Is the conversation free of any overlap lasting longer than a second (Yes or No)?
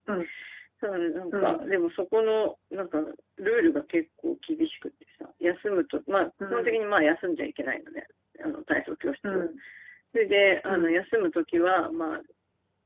Yes